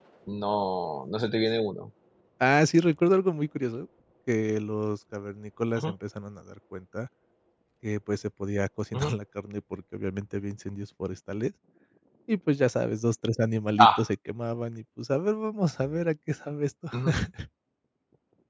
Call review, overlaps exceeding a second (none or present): none